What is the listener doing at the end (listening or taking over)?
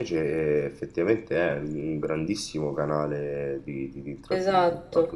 taking over